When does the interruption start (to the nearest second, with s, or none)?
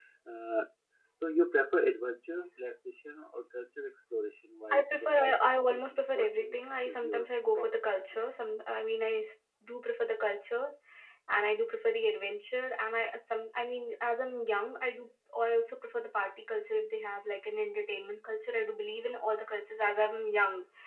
5 s